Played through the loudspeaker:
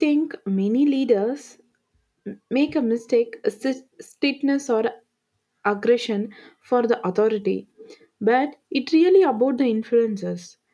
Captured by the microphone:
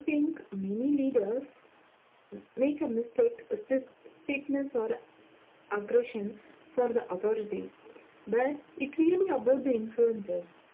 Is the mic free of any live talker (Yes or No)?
Yes